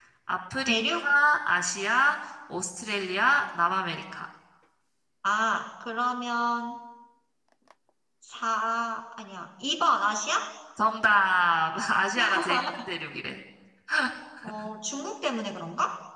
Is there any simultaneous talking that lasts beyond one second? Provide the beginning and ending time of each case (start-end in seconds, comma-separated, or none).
none